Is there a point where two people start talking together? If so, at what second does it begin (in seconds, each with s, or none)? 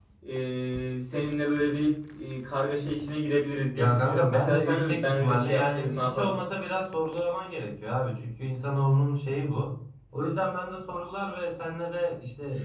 3.8 s